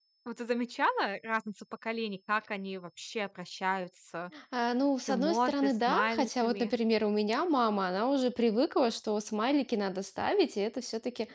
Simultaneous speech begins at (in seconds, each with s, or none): 5.1 s